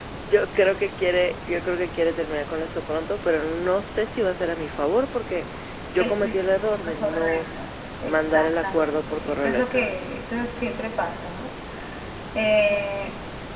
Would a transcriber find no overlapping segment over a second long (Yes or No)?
No